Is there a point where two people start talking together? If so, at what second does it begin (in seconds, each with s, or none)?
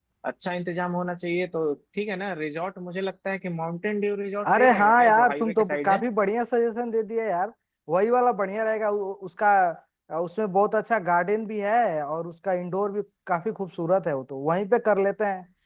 4.4 s